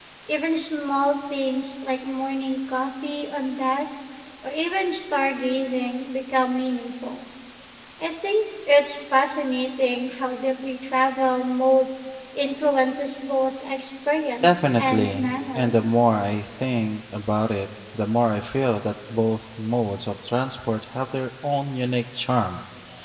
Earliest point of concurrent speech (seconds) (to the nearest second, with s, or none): 14 s